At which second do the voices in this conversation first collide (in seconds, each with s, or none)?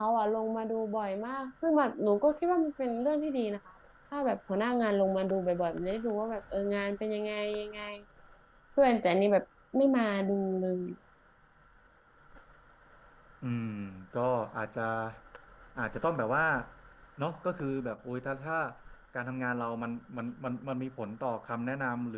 none